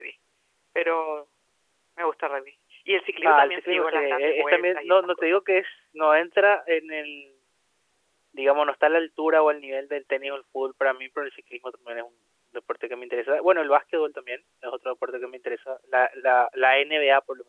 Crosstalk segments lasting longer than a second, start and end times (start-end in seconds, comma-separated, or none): 3.2-5.4